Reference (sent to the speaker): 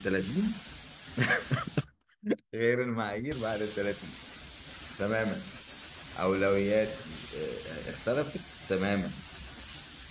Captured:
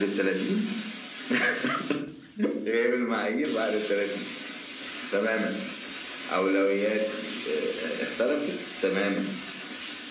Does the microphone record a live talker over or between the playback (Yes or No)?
No